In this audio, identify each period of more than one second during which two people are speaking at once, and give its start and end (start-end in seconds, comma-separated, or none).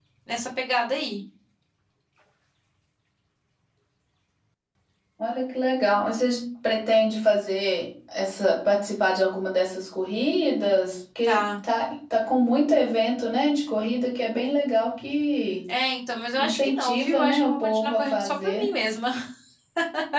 16.4-18.7